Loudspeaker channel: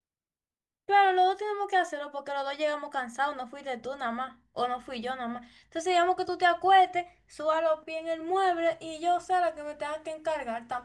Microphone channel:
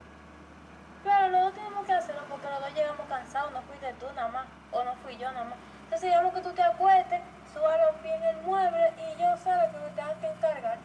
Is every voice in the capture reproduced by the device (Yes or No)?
Yes